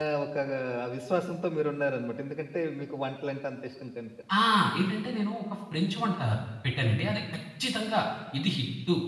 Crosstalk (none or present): none